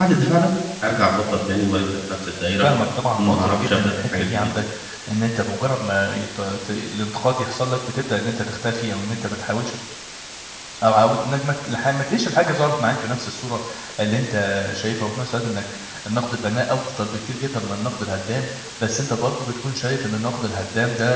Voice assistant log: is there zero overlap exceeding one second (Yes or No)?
No